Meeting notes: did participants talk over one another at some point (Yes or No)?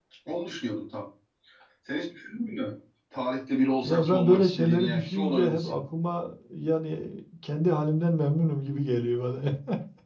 Yes